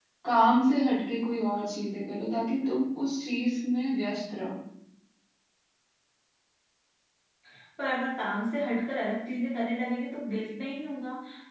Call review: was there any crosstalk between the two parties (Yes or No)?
No